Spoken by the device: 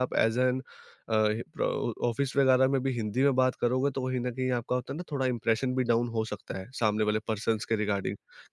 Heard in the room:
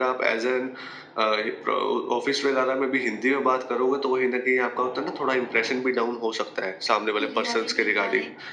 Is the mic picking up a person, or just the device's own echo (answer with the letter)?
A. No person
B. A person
B